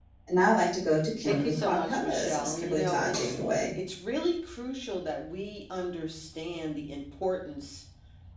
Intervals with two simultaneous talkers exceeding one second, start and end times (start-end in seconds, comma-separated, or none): 1.2-3.3